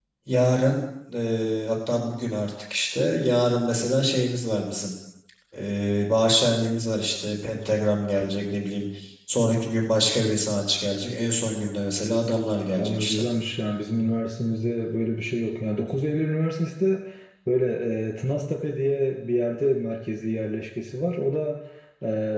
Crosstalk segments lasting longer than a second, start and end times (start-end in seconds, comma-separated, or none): none